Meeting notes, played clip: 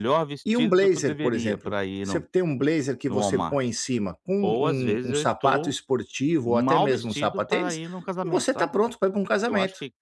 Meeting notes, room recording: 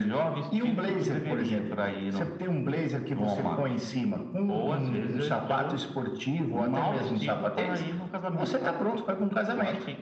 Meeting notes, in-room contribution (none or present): none